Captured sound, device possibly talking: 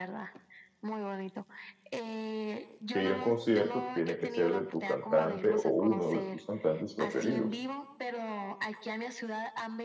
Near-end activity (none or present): present